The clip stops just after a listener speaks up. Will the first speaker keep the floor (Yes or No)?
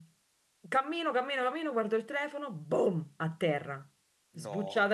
Yes